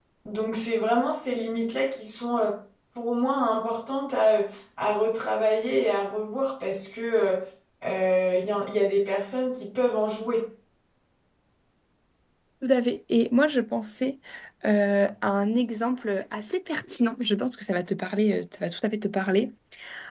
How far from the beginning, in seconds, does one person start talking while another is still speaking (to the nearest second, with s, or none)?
none